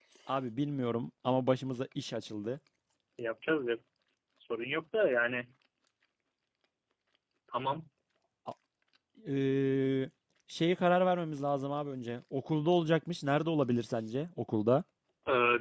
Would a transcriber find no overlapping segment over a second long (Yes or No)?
Yes